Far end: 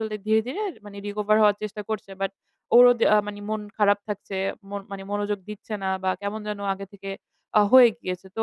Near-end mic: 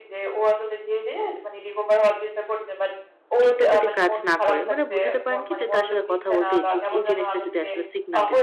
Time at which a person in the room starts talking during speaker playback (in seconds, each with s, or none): 3.5 s